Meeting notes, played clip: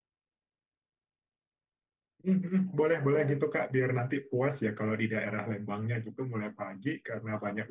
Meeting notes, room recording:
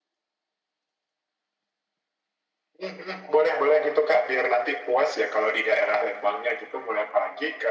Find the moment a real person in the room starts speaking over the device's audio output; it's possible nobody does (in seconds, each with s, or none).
none